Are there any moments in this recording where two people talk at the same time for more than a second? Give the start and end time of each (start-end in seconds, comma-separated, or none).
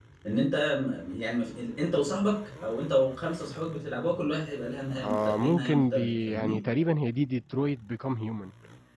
5.0-6.6